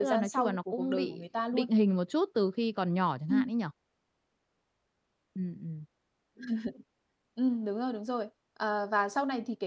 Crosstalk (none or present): present